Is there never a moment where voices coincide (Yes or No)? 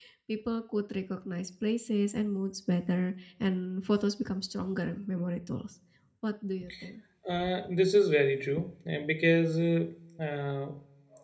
Yes